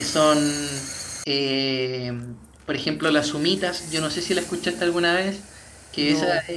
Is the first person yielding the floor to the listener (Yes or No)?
No